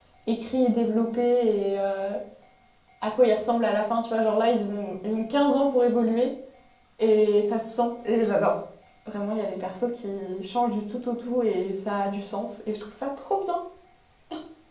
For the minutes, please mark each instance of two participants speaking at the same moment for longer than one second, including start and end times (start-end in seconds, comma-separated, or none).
none